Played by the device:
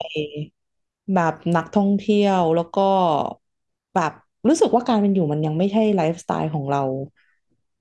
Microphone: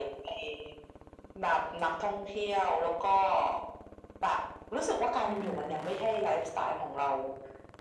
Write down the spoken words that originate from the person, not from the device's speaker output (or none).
อ่าอ่าอ่า